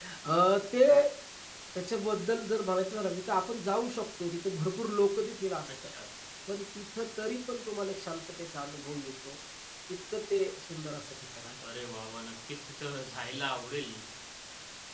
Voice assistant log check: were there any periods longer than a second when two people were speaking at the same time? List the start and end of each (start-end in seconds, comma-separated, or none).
none